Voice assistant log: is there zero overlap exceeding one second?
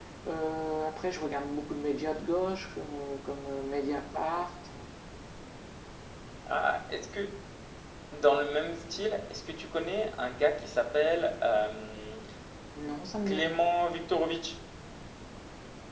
Yes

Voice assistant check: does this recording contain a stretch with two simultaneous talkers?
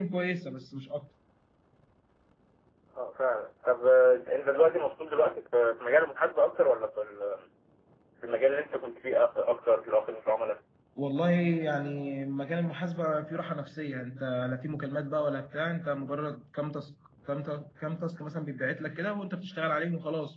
No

